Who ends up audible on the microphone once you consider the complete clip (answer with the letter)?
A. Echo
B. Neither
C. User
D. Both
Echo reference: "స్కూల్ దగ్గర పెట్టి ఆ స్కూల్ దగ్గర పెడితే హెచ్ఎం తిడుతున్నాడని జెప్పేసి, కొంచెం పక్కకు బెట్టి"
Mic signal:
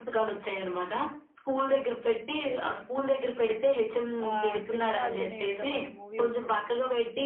D